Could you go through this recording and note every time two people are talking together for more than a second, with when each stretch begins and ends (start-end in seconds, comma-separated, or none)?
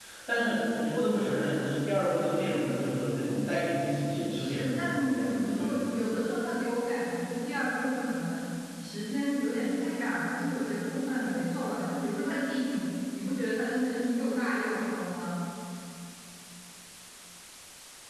4.3-5.8